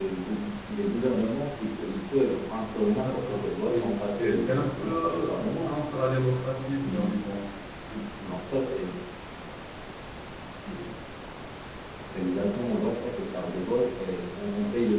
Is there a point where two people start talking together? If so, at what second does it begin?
2.9 s

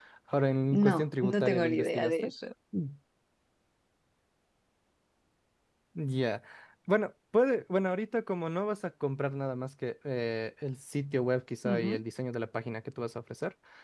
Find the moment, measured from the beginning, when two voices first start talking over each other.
0.7 s

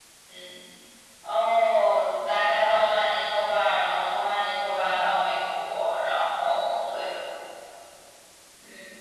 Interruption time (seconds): none

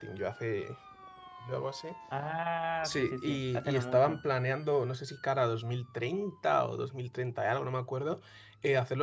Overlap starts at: 2.8 s

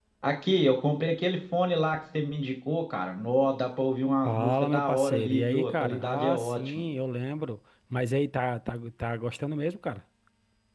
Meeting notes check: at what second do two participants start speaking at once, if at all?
4.2 s

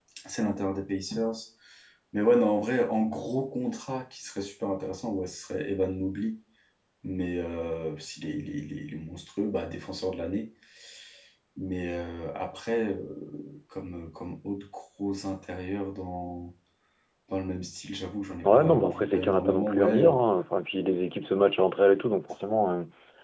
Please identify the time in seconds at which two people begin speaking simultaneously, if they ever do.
18.4 s

